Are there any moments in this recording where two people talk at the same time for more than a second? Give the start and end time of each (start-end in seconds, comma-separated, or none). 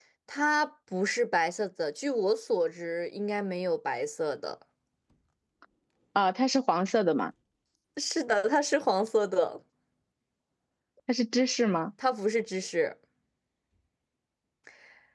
none